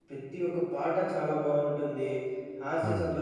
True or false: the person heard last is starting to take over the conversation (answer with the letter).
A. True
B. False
B